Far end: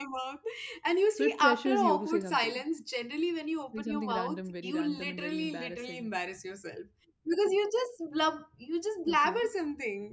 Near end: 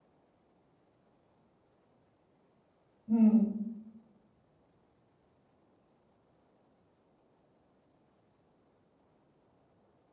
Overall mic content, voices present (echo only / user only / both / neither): user only